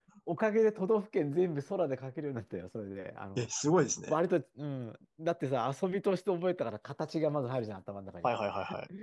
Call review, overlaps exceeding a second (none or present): none